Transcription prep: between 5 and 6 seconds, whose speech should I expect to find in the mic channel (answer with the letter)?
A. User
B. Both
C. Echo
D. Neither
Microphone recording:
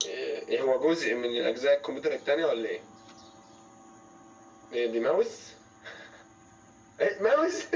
C